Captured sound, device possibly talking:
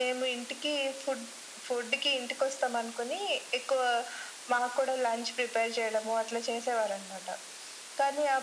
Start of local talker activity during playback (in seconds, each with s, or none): none